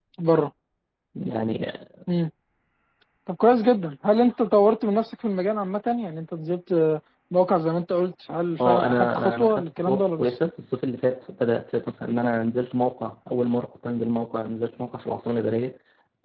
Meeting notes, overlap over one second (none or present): present